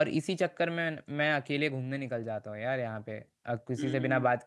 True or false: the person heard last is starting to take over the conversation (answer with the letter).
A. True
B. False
B